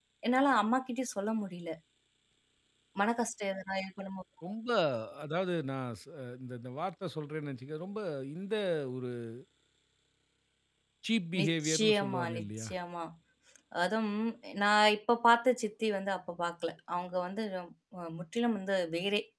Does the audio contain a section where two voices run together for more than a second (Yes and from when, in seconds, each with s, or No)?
Yes, from 11.4 s